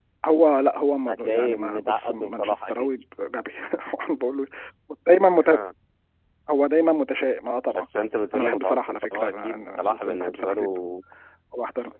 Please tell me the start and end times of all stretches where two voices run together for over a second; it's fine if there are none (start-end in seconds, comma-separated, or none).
1.1-2.9, 8.3-10.6